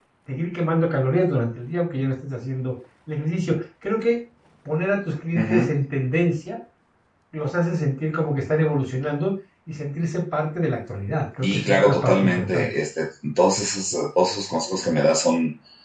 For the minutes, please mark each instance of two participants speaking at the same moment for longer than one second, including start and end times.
11.4-12.7

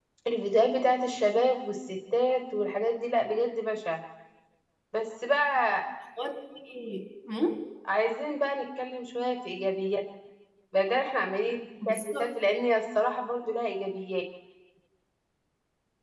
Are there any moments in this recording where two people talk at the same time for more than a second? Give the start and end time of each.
none

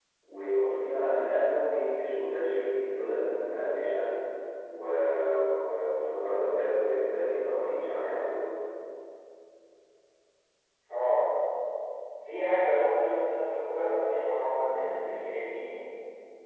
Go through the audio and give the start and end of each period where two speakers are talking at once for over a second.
none

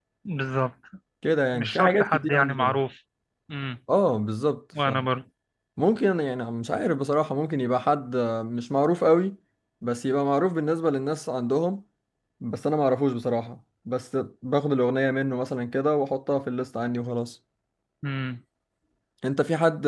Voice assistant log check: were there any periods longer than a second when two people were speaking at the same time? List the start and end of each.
1.5-2.8

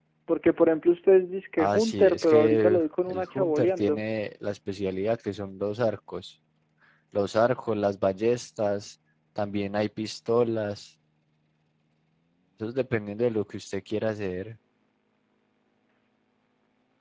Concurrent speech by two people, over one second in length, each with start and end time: 1.6-4.0

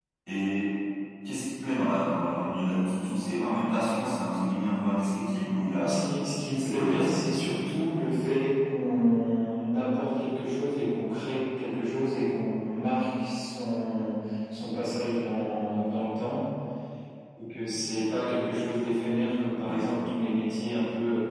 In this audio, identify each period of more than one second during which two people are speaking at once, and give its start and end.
6.6-7.8

